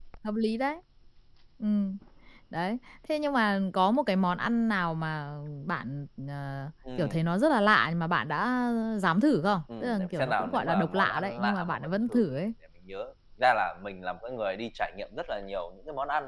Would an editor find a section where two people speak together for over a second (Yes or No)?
Yes